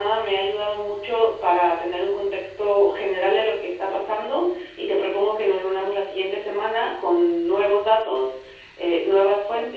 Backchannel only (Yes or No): Yes